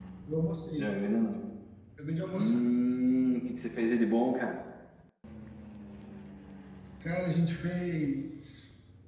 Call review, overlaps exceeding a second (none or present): none